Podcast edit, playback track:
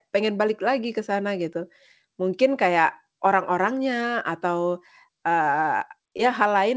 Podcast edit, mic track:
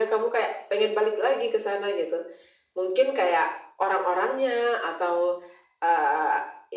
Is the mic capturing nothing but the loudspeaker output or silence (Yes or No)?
Yes